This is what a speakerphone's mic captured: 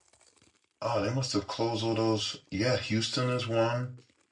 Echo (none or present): none